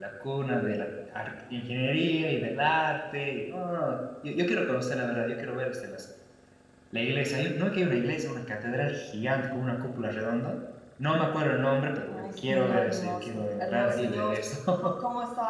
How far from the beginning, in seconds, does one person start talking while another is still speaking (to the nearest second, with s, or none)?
12 s